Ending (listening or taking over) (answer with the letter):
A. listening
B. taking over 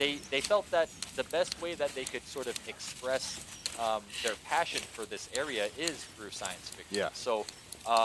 A